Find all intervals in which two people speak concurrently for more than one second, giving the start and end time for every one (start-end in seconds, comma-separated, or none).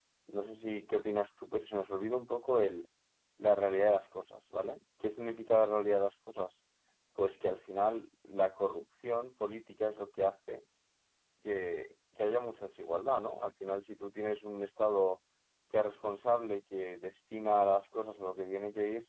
none